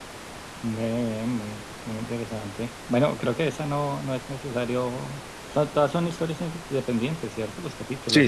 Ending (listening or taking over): taking over